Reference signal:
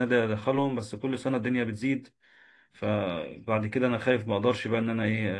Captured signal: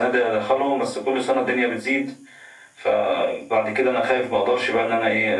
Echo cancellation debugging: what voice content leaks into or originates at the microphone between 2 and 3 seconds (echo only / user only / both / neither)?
echo only